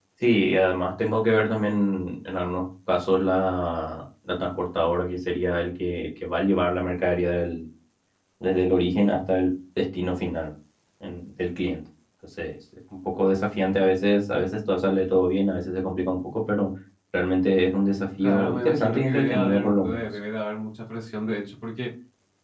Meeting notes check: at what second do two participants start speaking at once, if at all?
18.2 s

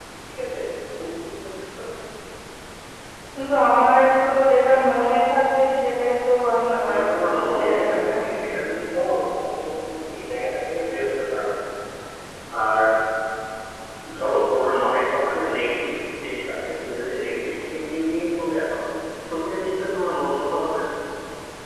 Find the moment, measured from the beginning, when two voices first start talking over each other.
6.7 s

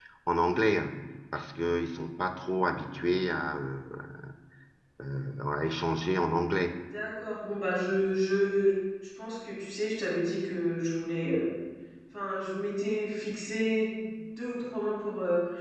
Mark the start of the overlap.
none

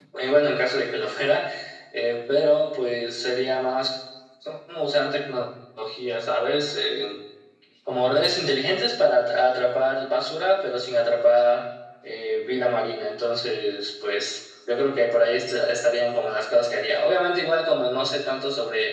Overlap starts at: none

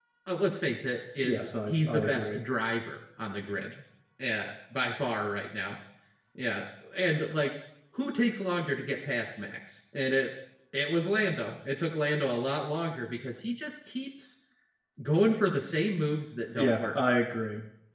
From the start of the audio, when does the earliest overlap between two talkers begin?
1.2 s

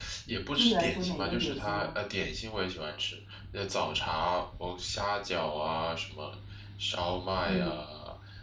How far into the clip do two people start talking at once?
0.6 s

